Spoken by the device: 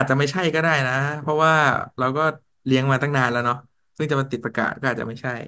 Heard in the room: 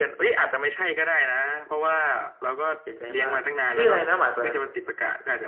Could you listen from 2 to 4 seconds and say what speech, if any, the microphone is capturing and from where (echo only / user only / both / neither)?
both